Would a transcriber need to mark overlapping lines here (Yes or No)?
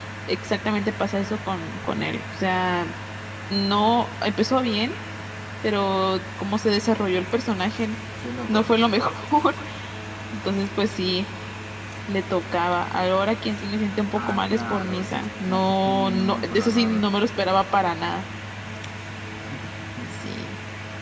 Yes